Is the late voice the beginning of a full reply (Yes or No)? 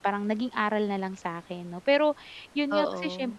No